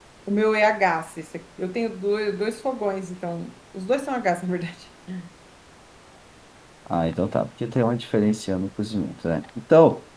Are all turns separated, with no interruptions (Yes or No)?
Yes